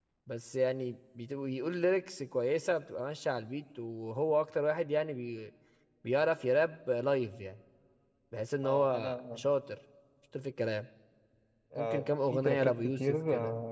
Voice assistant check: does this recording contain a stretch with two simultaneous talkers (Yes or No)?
Yes